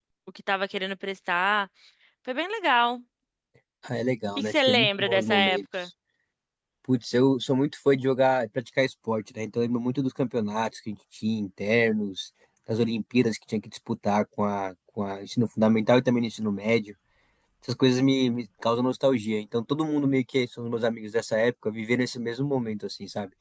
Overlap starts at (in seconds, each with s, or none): 4.4 s